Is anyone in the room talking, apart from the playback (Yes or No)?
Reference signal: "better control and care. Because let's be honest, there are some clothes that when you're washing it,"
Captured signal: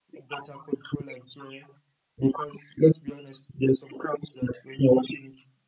No